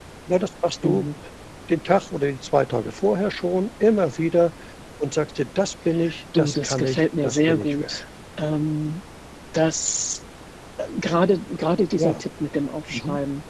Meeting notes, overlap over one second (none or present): present